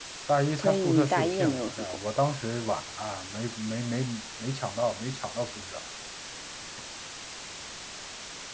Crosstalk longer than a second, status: present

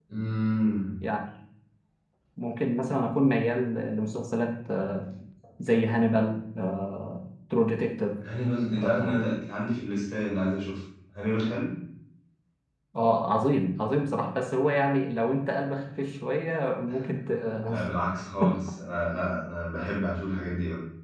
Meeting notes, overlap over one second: none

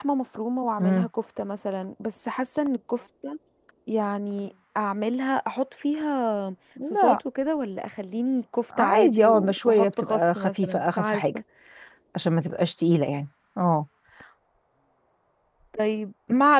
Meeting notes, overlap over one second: present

